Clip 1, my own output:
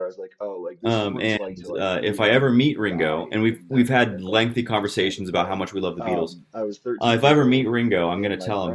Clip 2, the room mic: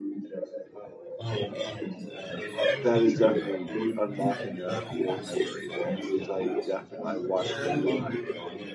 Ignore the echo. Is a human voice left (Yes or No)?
Yes